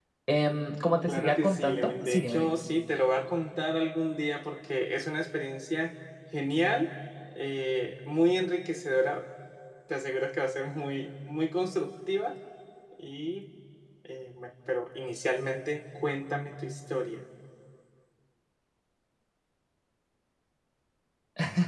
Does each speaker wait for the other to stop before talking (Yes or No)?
No